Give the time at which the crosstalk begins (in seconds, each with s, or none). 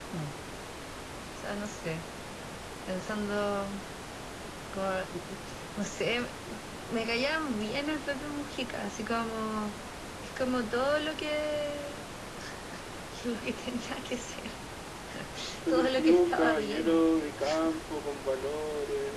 15.7 s